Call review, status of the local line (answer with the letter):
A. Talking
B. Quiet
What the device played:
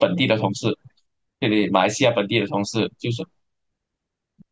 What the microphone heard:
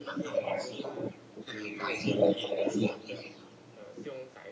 A